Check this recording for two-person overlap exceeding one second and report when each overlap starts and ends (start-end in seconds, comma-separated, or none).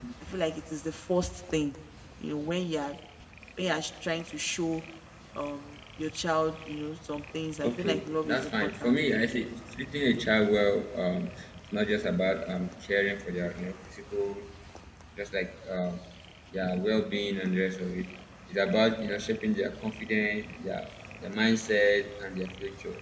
7.6-9.0